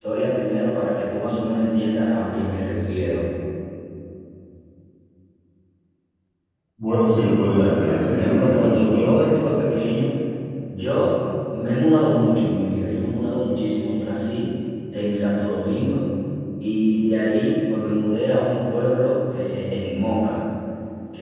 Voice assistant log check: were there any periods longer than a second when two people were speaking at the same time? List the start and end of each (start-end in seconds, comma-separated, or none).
7.5-9.4